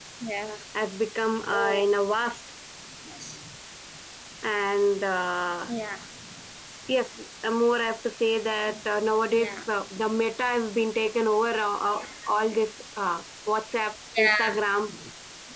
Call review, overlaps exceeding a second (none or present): none